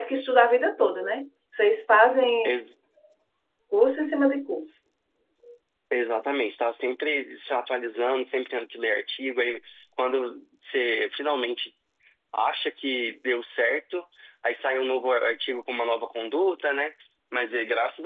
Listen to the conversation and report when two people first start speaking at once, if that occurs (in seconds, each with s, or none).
none